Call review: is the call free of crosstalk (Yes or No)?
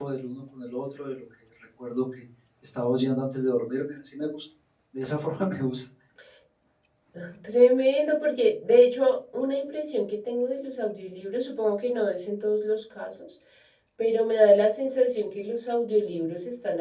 Yes